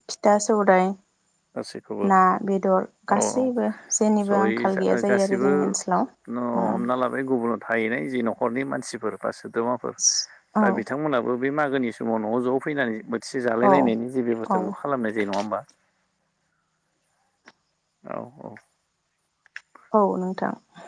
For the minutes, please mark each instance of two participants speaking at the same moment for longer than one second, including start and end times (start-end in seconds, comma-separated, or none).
4.3-5.5